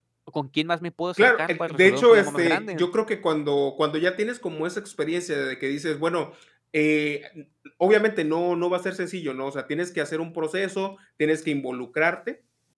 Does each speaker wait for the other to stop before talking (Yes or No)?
No